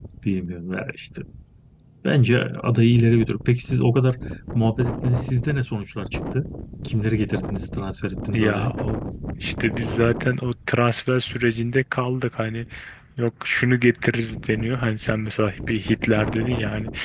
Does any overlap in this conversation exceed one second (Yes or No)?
No